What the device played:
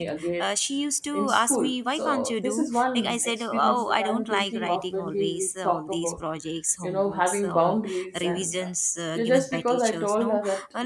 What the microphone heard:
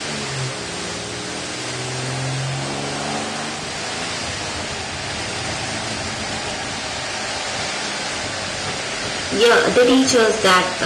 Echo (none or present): none